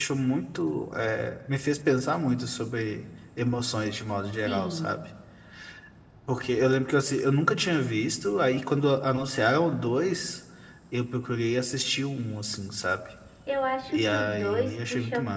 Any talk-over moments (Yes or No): Yes